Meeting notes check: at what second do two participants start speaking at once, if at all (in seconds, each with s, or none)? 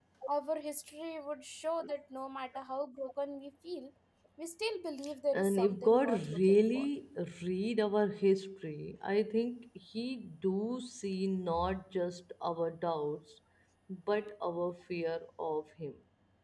5.3 s